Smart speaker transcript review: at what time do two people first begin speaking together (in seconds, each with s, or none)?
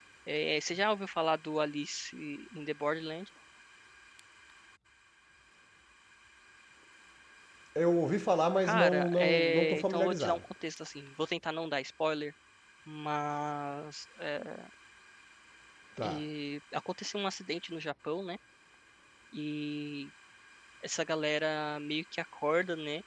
8.6 s